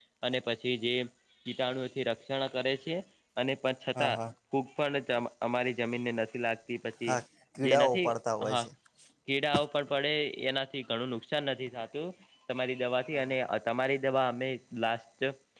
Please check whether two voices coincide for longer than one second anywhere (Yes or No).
No